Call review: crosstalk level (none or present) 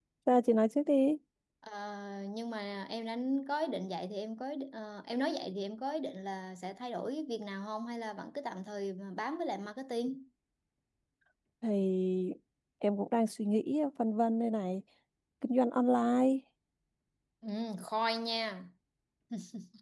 none